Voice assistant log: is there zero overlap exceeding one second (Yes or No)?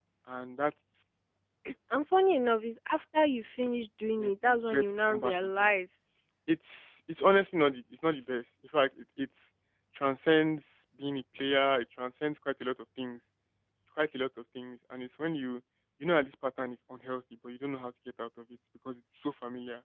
No